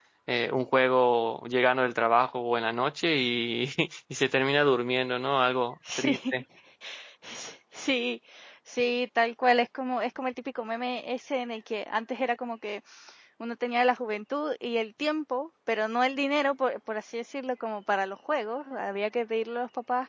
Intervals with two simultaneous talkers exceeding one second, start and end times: none

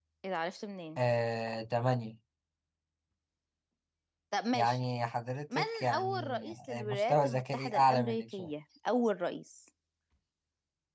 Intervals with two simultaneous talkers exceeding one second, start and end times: 5.5-8.5

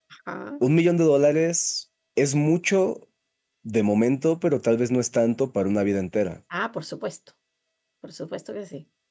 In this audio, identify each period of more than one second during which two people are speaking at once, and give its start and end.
none

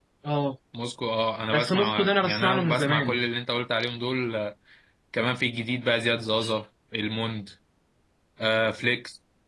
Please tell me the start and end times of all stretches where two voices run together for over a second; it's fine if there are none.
1.5-3.2

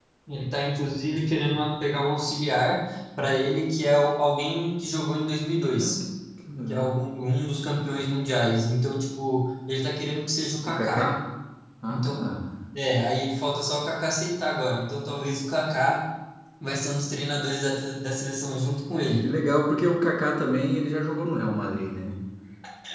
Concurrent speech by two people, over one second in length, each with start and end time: none

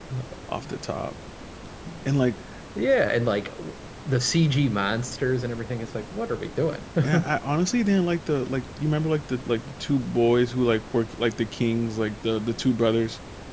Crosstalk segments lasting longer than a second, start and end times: none

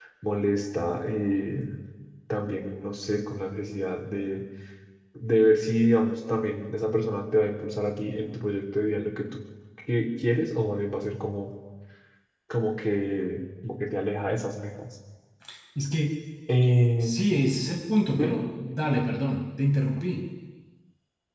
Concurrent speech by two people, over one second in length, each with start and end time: none

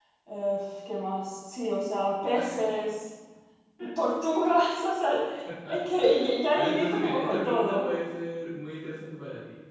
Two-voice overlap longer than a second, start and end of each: 6.5-7.9

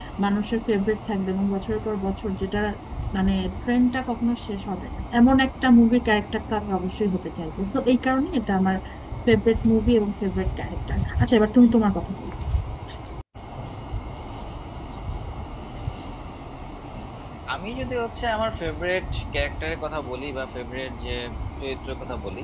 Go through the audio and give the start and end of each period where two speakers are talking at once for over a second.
none

